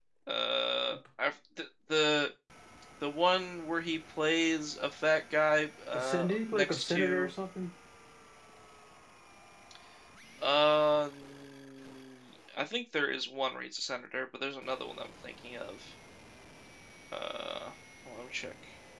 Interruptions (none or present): present